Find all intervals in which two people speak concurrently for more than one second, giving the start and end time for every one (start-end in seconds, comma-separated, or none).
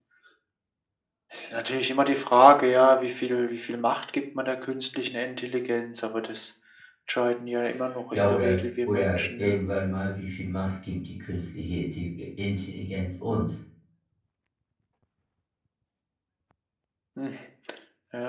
8.1-9.6